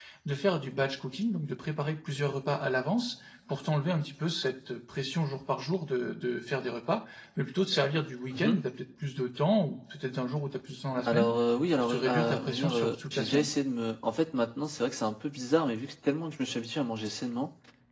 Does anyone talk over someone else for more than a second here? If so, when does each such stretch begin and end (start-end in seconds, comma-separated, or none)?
11.8-13.5